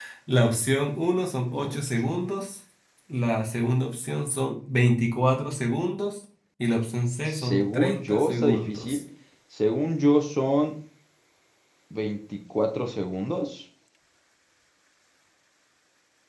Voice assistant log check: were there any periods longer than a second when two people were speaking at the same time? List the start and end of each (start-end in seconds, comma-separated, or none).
7.2-9.0